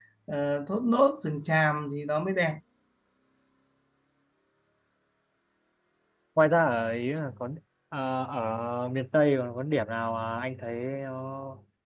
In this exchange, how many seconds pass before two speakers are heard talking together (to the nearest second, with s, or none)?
none